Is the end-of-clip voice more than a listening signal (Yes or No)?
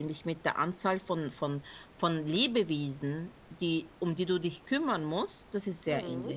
Yes